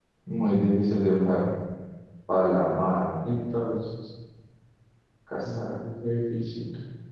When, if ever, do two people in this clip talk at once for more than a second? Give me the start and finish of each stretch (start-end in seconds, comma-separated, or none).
none